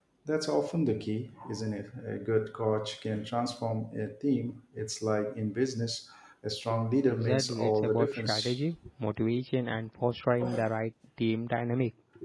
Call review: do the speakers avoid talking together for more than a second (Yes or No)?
No